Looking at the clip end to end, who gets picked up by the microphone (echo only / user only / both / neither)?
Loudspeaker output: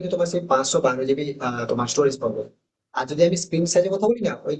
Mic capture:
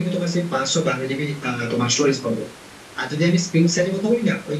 echo only